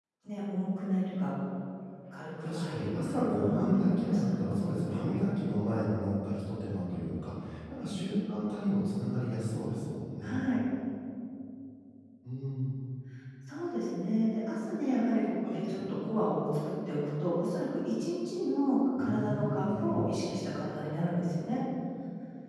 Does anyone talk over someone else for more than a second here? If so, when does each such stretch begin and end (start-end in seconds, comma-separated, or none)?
2.4-4.2, 19.0-20.2